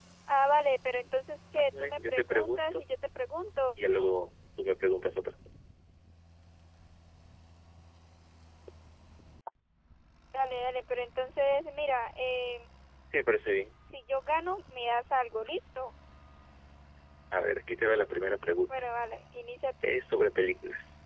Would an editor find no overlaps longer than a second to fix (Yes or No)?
No